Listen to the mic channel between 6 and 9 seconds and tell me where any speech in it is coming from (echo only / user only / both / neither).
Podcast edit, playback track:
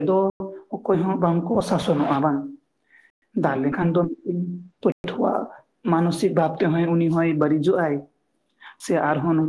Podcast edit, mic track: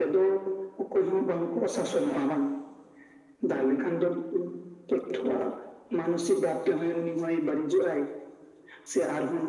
echo only